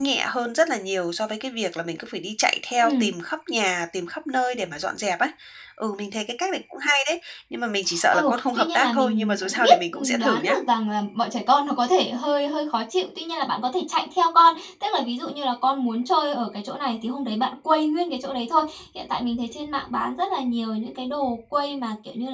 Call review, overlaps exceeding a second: present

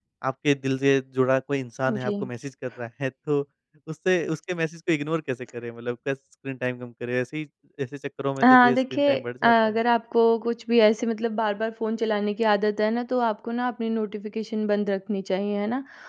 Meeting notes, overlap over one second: present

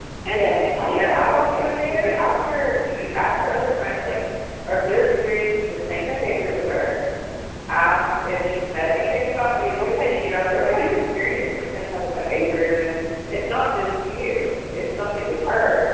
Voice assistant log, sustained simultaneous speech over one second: present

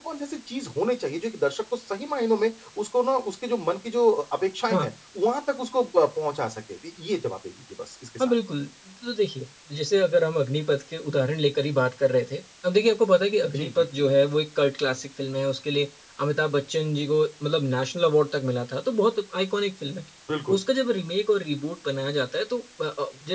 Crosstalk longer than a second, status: none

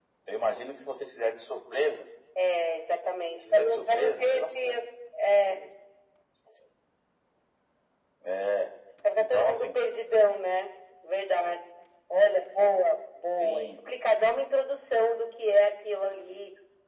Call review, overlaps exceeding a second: present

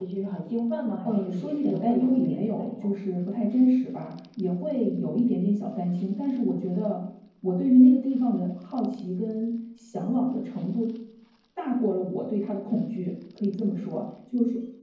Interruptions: present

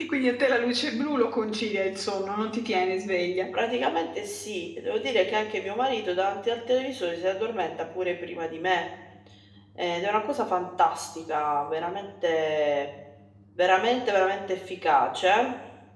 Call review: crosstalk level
none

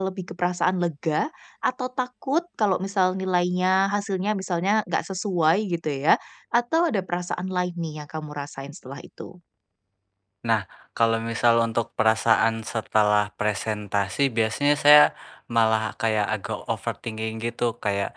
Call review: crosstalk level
none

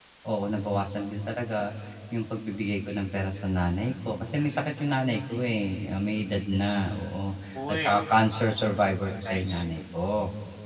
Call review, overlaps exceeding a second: none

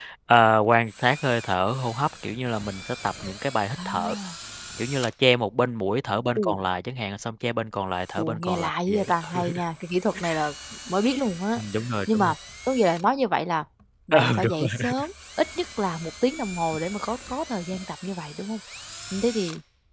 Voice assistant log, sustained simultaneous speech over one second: present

